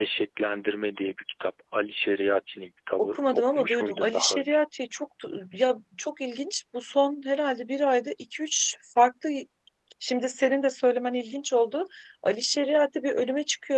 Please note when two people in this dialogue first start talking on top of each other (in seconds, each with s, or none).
3.0 s